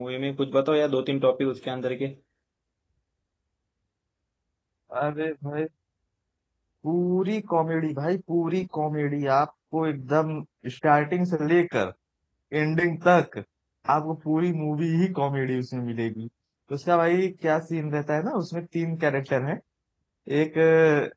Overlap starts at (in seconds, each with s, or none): none